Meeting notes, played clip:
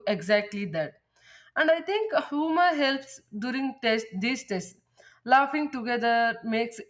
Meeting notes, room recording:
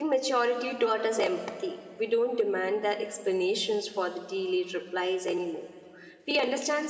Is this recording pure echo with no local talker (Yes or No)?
No